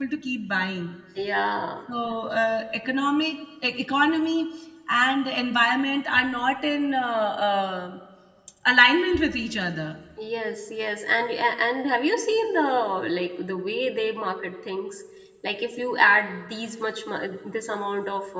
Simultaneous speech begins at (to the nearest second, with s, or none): none